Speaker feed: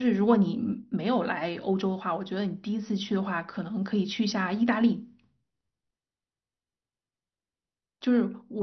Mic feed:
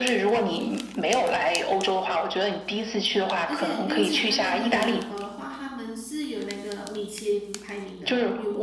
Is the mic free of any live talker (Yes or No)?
No